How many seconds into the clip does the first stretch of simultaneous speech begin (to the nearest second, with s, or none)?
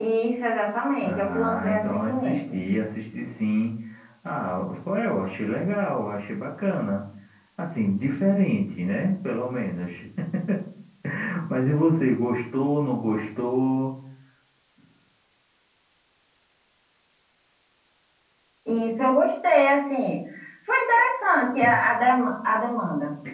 1 s